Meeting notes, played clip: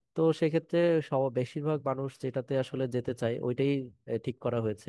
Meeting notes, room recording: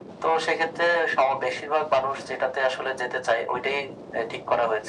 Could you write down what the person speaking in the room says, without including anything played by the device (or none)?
none